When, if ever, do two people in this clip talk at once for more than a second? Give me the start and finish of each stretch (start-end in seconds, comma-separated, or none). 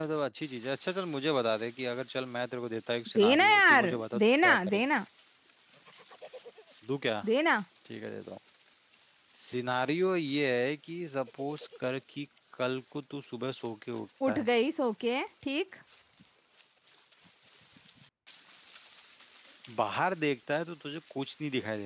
3.2-4.8